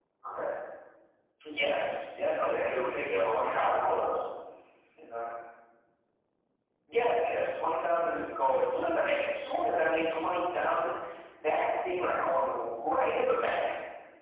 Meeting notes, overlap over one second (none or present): present